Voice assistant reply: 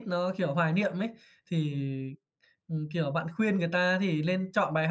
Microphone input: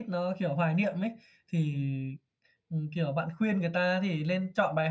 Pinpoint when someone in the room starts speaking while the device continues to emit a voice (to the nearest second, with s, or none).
none